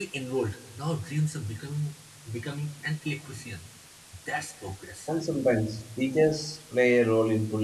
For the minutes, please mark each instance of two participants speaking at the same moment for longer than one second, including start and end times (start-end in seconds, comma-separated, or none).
none